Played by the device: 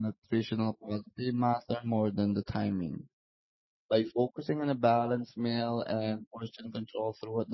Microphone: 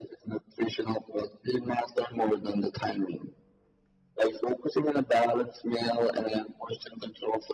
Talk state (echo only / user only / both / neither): echo only